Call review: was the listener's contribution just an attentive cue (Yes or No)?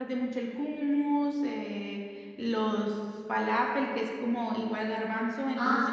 No